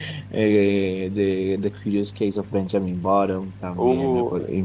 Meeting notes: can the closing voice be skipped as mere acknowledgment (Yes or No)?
Yes